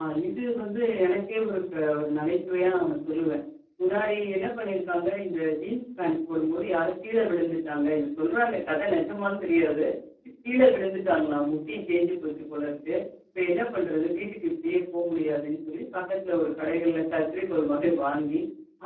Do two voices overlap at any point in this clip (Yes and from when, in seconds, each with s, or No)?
No